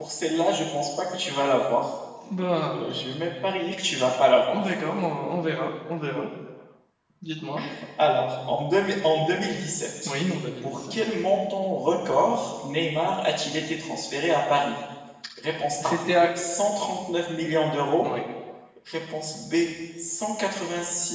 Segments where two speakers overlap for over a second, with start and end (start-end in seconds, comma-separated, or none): none